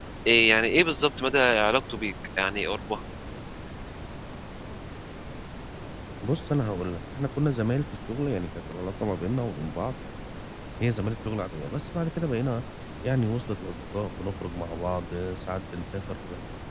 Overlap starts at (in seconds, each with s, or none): none